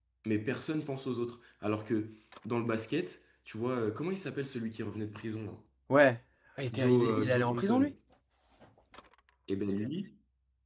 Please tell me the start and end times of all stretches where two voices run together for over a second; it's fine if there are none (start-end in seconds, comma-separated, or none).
6.7-7.9